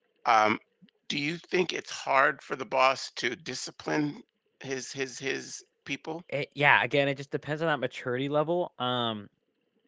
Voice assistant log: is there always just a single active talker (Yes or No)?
Yes